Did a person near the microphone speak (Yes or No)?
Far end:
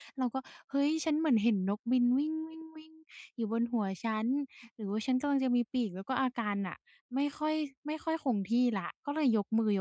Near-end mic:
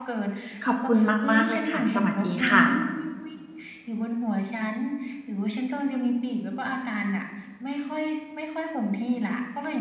Yes